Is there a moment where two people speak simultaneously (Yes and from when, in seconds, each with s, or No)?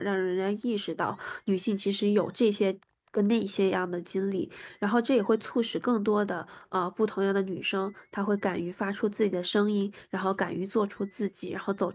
No